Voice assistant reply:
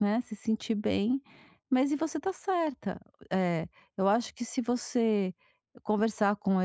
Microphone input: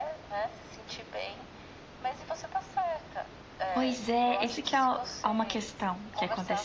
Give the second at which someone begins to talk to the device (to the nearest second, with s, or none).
4 s